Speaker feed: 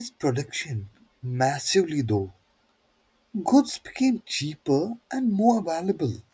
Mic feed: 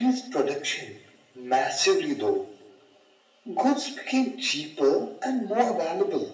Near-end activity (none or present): none